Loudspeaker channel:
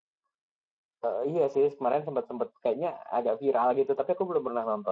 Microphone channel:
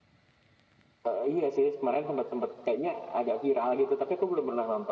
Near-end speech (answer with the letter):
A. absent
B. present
A